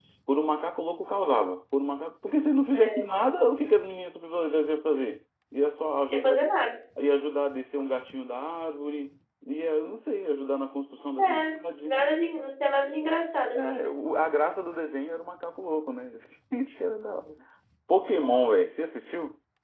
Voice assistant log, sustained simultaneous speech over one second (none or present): none